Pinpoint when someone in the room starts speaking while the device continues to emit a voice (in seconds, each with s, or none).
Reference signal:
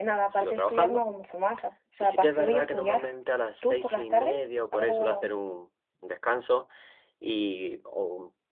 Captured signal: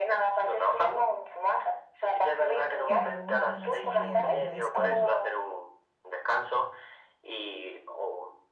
2.8 s